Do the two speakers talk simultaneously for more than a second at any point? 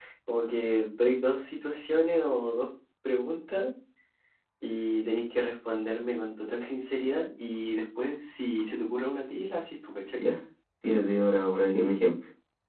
No

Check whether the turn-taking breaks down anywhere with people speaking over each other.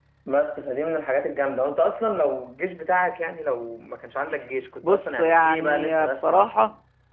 Yes, from 4.8 s

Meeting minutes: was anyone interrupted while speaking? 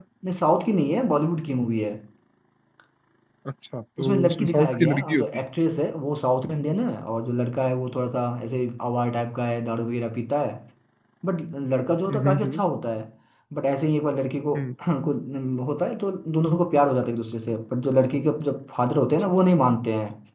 Yes, from 4.0 s

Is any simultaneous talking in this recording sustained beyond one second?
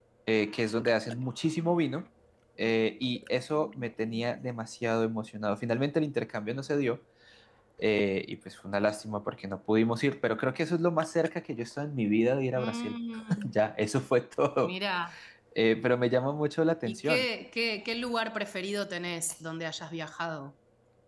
No

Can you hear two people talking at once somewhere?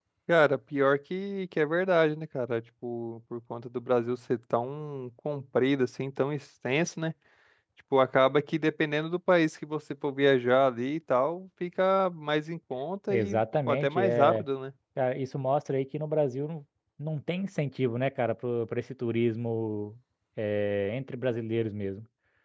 Yes, from 13.1 s

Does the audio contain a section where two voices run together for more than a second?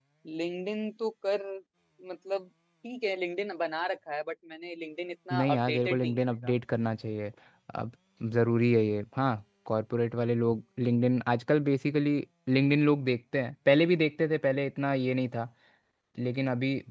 Yes, from 5.3 s

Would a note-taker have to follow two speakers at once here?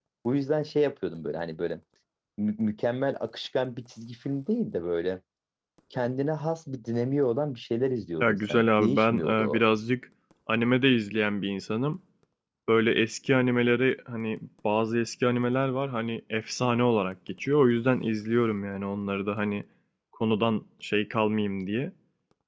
Yes, from 8.2 s

